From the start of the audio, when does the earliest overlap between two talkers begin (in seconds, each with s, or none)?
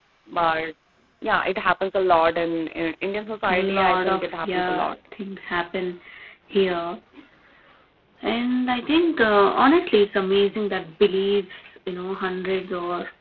3.4 s